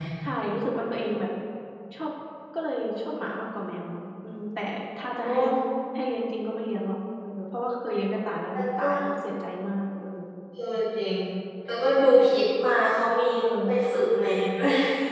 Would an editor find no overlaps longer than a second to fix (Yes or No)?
Yes